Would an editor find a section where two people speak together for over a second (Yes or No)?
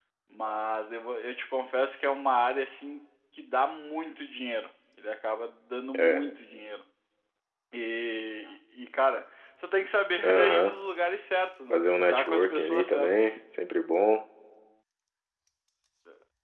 Yes